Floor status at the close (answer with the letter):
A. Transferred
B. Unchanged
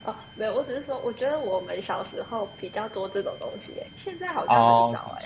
A